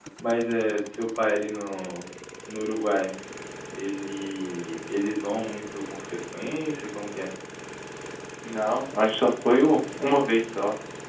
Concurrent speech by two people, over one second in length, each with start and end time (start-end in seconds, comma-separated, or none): none